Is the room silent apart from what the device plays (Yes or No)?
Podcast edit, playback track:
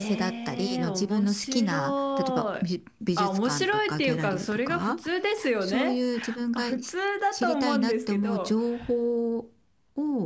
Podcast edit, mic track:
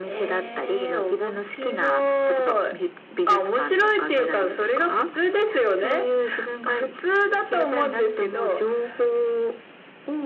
Yes